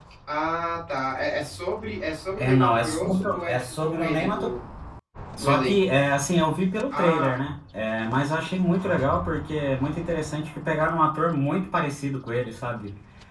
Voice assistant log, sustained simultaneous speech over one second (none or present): present